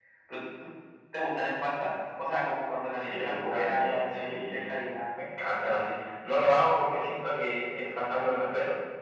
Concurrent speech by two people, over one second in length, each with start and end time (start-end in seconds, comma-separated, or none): 3.0-4.7